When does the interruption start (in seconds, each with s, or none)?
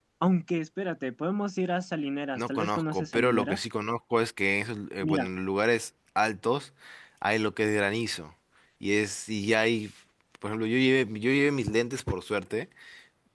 2.4 s